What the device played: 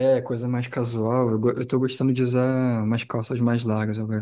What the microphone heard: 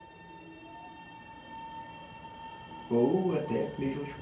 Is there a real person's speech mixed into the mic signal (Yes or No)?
Yes